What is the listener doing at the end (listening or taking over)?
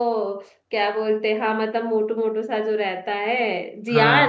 taking over